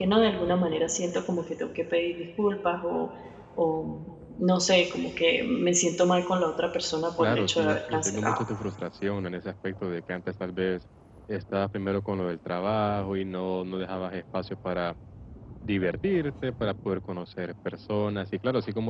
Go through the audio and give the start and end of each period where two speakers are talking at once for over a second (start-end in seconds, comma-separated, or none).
7.2-8.4